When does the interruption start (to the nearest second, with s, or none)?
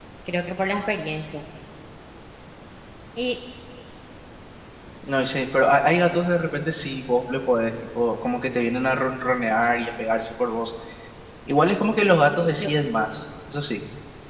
none